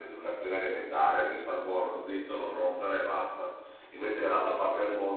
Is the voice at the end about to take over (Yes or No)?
No